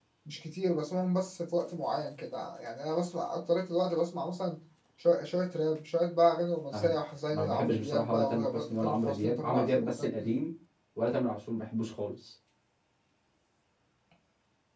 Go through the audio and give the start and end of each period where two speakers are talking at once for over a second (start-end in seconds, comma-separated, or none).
7.3-10.3